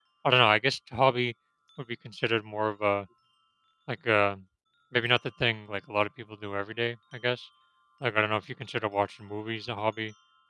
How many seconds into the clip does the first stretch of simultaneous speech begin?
none

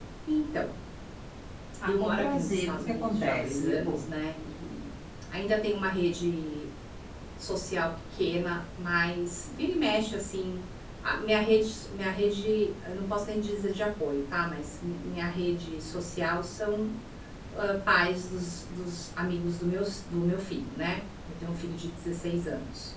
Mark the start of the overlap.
2 s

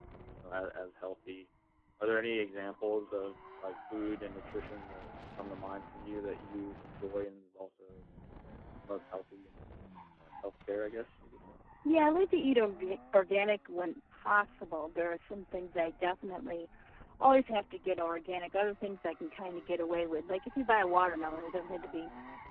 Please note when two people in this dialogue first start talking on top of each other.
none

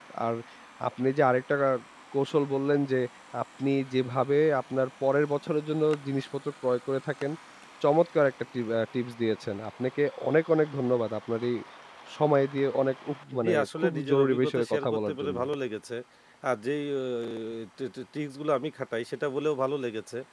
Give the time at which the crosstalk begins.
13 s

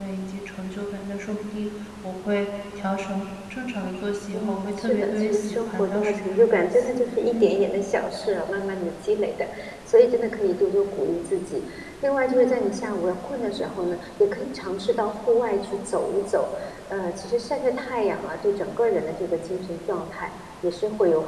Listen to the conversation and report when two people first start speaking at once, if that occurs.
4 s

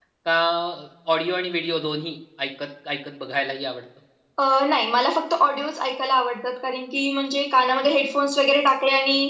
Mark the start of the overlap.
none

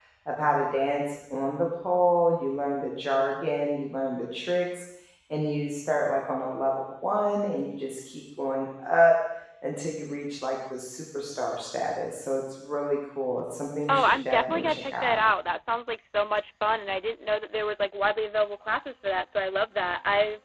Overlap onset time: 14 s

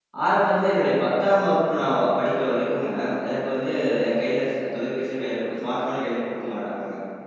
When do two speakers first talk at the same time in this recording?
none

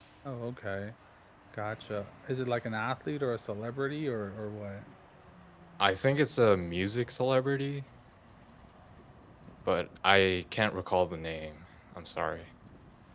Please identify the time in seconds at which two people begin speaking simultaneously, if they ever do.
none

